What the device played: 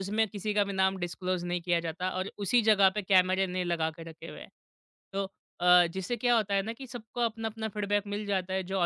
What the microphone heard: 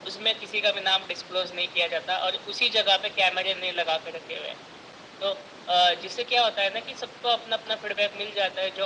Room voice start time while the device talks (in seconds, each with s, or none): none